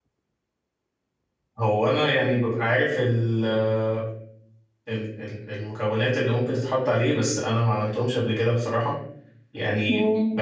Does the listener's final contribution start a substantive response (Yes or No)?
No